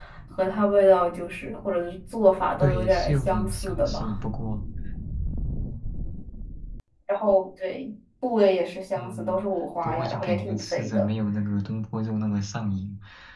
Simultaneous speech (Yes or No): Yes